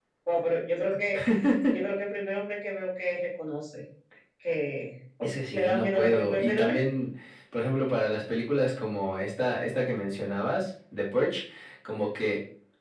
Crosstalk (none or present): present